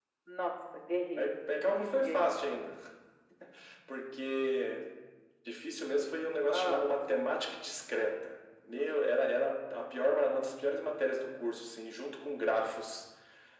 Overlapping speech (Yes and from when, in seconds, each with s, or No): Yes, from 1.2 s